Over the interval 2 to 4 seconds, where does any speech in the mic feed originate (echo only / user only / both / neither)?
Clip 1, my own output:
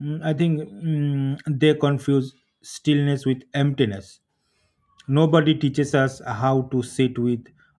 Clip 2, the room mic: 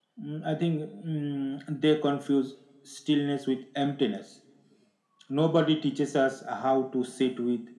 echo only